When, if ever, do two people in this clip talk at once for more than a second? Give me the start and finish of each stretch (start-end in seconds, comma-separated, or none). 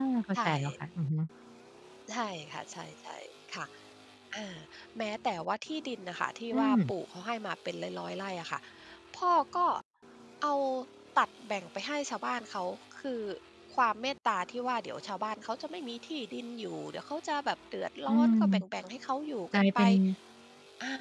none